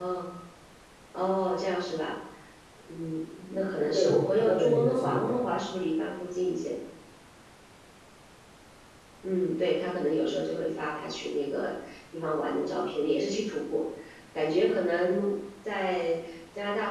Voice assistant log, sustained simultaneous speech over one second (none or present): present